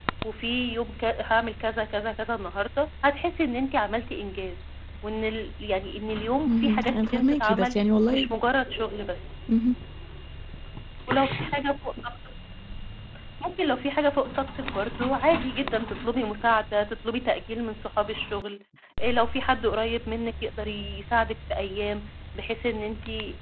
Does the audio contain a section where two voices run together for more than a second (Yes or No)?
Yes